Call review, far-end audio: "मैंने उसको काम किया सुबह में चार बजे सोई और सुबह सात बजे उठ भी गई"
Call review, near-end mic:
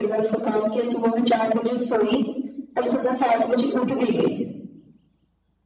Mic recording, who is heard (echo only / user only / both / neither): echo only